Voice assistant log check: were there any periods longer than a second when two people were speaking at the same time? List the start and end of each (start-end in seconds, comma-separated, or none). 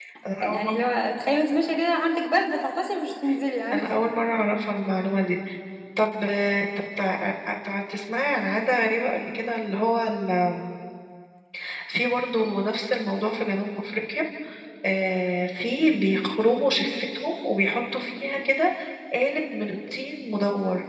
none